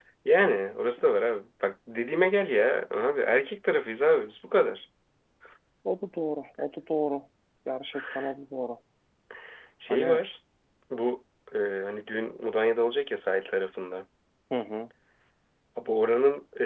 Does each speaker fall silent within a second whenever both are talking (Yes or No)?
Yes